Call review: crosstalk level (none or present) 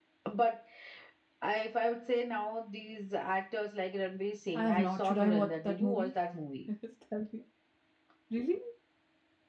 present